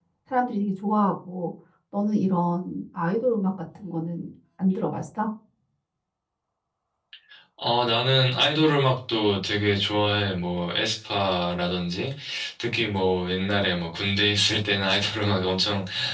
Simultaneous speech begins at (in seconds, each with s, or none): none